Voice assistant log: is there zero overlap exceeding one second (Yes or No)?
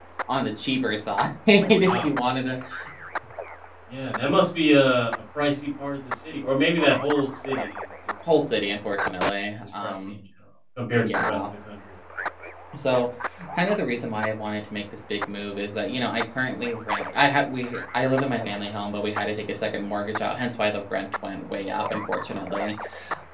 Yes